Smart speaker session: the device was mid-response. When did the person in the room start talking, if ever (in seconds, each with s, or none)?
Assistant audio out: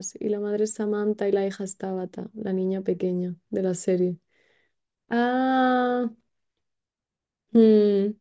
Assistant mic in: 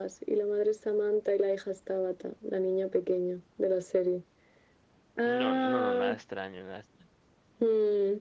5.2 s